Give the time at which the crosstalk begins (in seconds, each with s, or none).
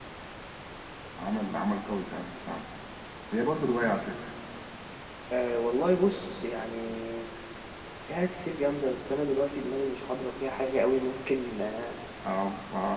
none